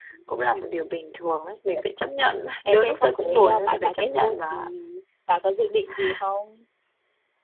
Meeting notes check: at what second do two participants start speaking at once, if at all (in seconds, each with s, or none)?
2.7 s